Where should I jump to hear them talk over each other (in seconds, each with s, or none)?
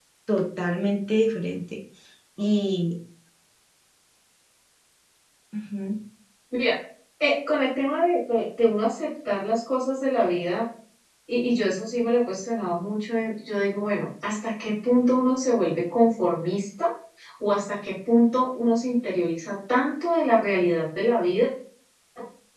none